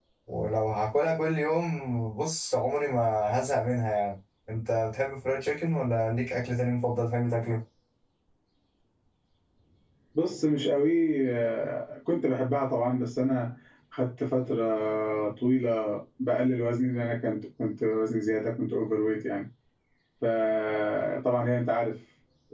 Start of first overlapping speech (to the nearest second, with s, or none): none